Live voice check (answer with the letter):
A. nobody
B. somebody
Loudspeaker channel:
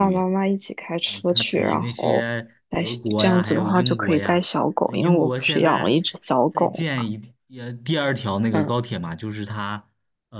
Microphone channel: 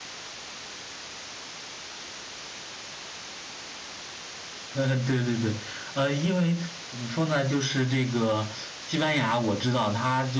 B